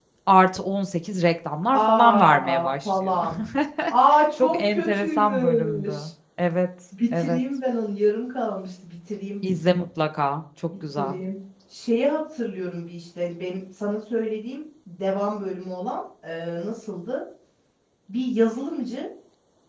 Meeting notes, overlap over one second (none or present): present